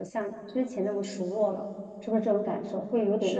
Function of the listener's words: taking over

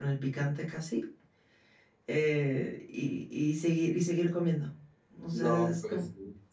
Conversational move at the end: taking over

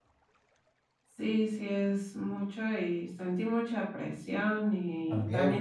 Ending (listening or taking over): listening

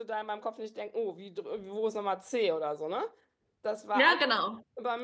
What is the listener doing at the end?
listening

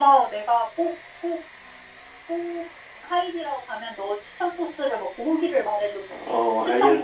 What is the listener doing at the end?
taking over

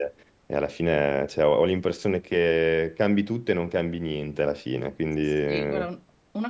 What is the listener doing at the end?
taking over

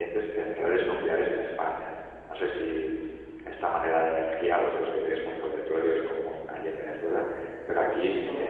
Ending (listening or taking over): listening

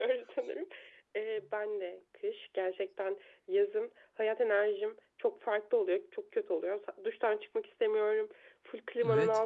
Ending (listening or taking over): listening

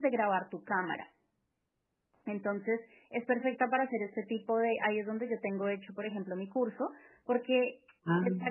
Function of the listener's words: listening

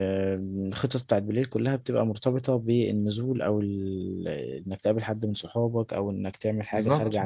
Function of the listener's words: taking over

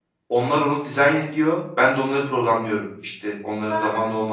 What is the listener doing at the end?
listening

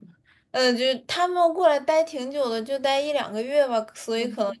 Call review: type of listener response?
listening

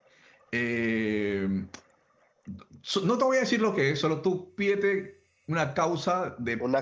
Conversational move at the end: listening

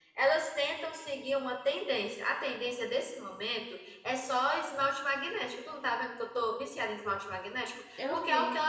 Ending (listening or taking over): listening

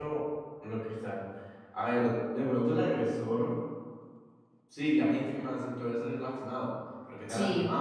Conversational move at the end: listening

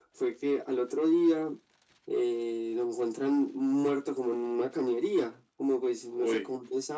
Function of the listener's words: listening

